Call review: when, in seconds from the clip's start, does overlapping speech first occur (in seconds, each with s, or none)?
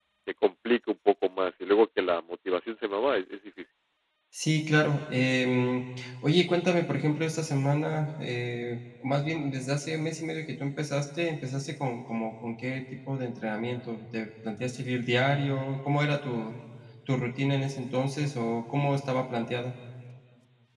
none